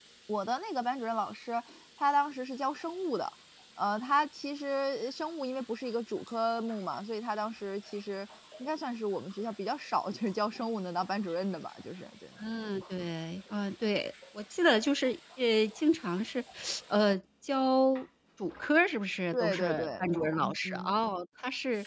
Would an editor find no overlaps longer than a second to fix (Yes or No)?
No